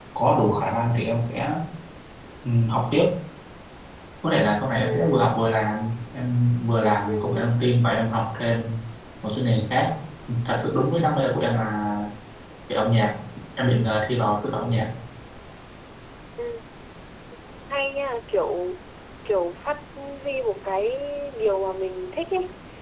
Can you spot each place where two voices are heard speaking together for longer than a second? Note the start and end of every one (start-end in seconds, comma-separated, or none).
none